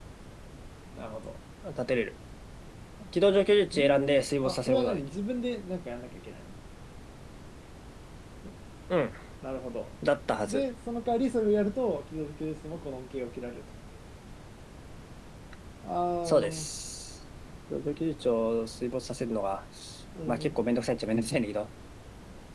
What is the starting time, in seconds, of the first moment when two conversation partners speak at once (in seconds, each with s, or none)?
3.7 s